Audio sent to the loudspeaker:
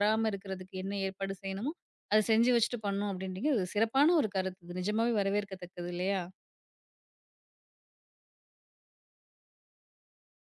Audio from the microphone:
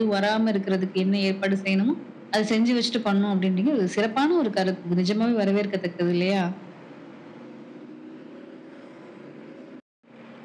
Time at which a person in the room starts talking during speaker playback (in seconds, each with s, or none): none